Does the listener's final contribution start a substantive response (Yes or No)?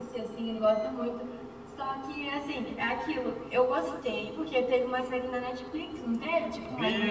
Yes